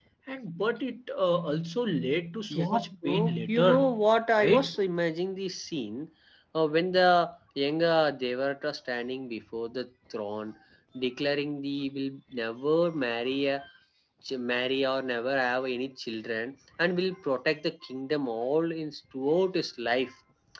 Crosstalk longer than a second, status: present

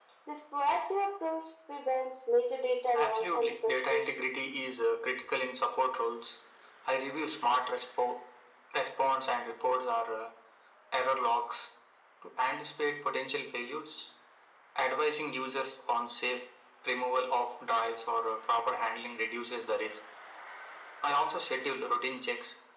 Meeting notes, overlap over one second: present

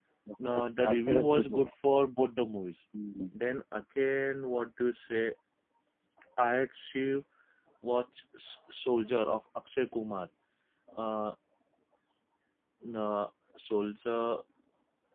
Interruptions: present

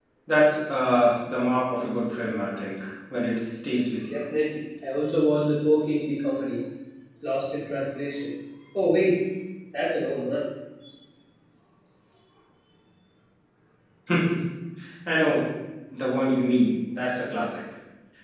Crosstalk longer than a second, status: none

